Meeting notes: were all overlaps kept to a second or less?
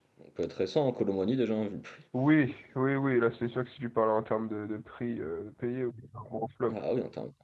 Yes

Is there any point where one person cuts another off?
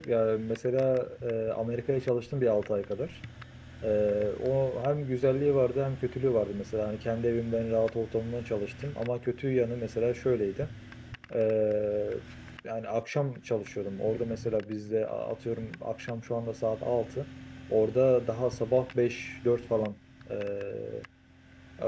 No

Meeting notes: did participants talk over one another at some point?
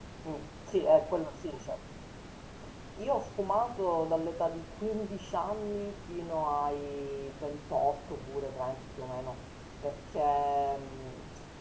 No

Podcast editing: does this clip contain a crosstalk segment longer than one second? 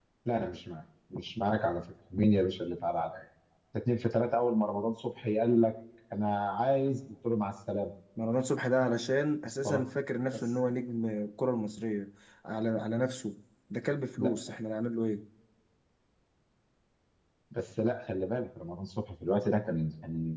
No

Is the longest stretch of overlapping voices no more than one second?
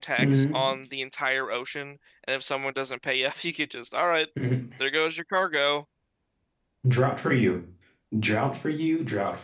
Yes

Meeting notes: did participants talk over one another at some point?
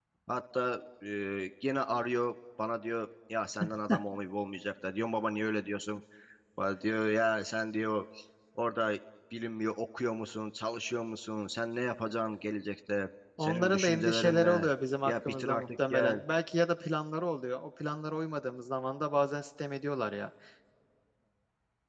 Yes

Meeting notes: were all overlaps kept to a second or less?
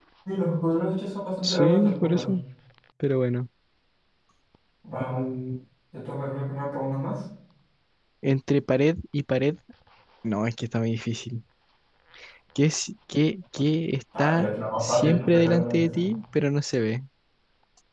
No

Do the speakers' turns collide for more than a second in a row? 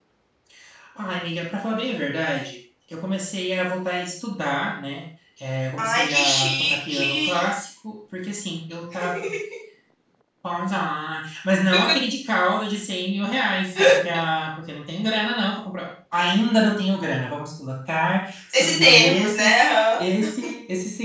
Yes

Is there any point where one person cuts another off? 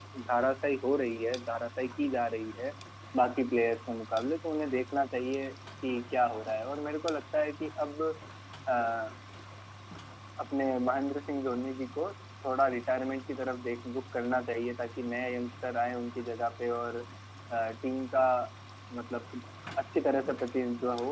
No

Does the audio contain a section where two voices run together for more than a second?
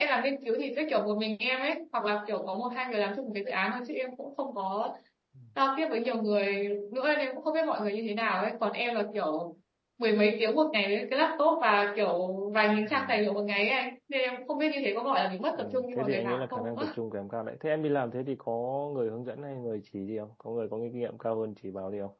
Yes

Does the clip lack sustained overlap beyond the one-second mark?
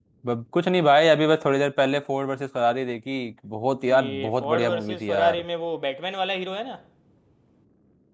No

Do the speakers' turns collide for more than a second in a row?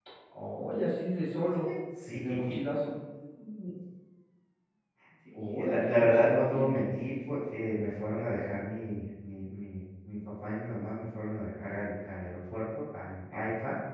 Yes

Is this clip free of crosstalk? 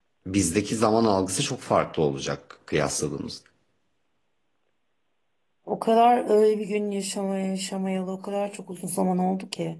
Yes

